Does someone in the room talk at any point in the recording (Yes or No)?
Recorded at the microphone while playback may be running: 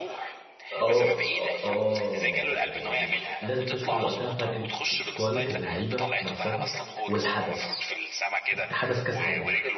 Yes